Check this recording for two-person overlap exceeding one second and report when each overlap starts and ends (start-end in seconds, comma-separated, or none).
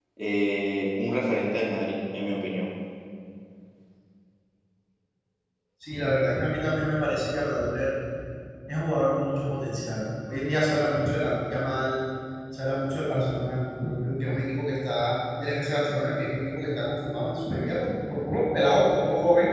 none